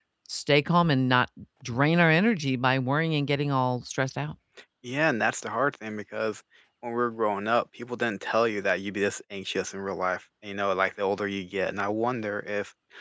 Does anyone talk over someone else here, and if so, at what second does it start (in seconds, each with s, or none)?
none